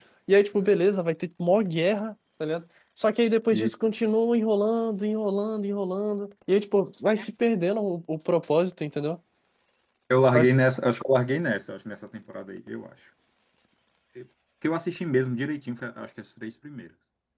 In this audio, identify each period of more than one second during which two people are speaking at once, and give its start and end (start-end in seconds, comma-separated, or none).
none